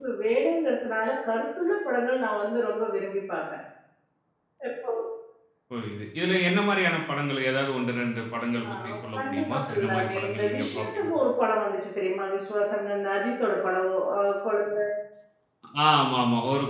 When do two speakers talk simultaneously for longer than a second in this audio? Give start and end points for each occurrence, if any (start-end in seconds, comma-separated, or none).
9.2-11.1